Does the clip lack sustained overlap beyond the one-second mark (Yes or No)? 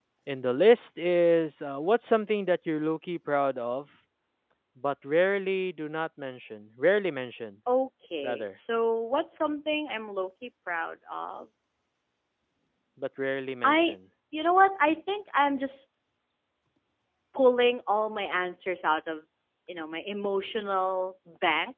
Yes